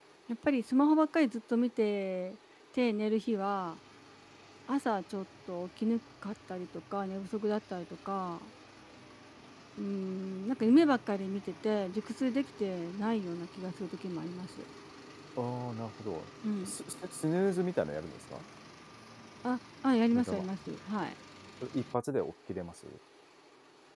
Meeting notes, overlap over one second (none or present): none